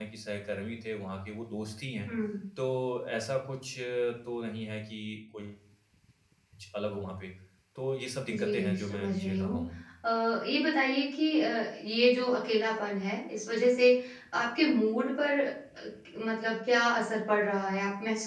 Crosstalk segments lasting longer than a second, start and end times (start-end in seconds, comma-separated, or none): 8.3-9.6